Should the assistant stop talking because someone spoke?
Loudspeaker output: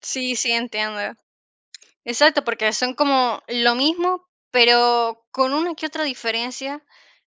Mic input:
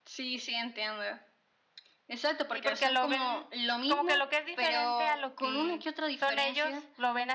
Yes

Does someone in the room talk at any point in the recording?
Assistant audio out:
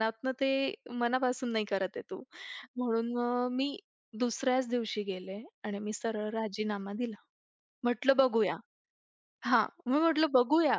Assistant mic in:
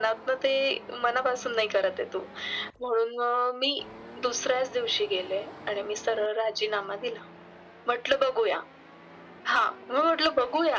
No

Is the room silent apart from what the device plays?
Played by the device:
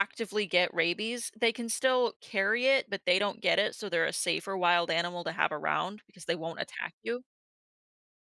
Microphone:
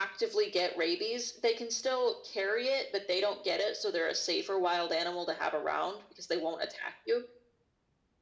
Yes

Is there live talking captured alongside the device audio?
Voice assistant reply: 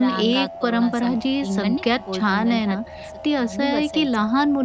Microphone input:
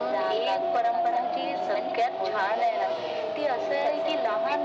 No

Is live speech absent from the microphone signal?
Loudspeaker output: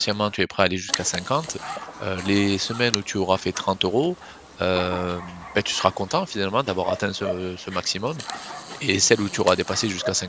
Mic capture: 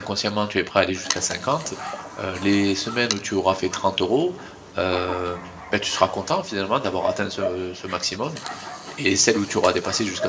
Yes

